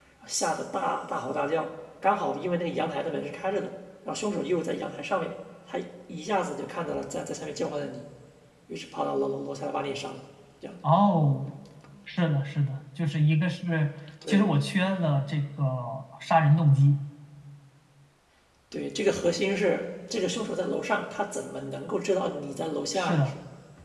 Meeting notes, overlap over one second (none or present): none